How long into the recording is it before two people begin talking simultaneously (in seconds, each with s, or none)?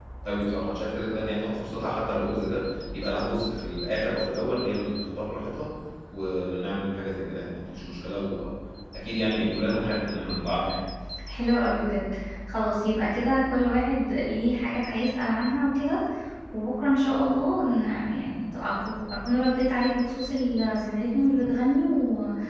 none